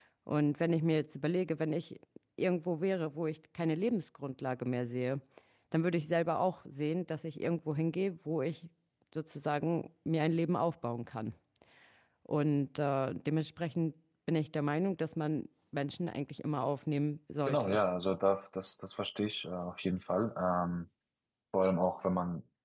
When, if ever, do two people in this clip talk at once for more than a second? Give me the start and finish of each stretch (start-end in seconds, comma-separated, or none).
none